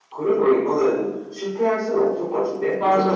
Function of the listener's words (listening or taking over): taking over